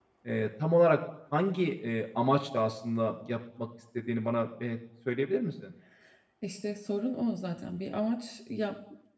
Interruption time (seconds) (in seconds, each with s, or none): none